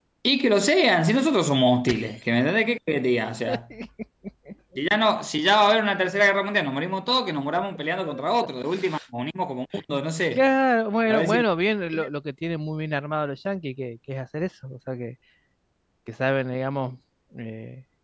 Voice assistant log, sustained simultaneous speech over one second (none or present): none